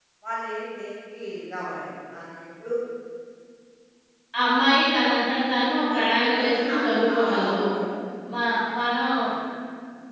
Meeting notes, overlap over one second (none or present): present